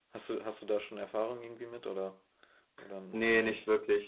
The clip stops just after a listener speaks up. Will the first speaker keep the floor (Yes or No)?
No